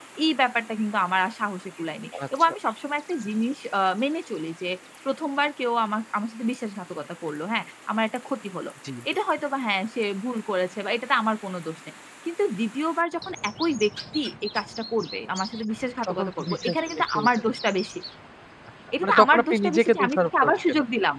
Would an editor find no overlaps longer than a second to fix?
No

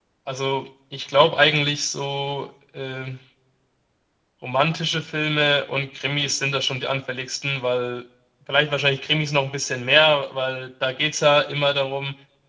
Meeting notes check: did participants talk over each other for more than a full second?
No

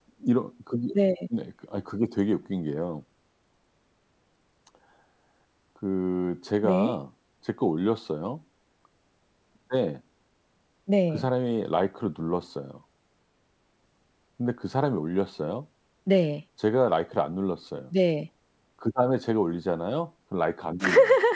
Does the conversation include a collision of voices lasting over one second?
No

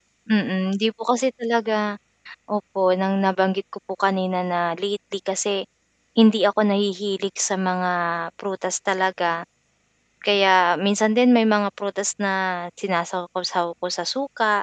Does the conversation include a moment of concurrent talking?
No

